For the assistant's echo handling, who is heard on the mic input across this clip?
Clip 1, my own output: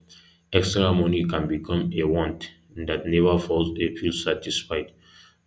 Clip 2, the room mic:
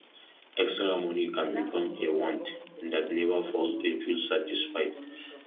both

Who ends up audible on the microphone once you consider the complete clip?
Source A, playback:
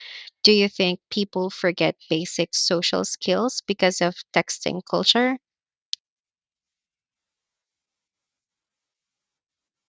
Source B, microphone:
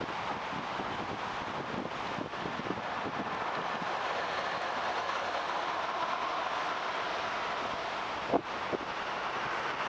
neither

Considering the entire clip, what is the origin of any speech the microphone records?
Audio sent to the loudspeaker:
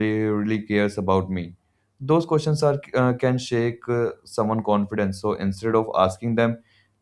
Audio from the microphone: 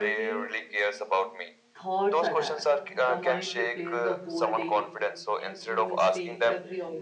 both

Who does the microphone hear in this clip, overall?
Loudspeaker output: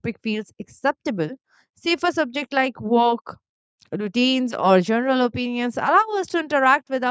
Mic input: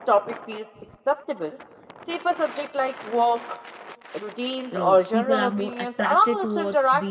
both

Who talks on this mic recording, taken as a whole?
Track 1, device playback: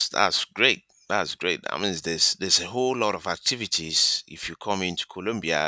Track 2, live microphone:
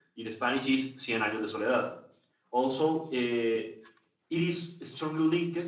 user only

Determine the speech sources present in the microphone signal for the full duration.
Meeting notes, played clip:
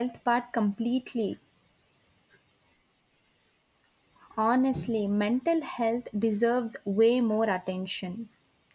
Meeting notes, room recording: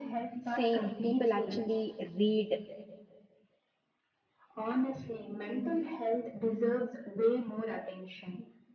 both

